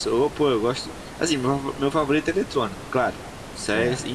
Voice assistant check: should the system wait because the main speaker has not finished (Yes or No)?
Yes